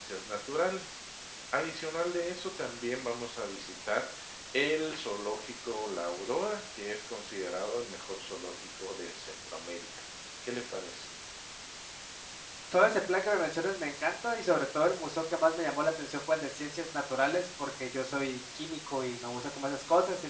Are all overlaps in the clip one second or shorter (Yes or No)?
Yes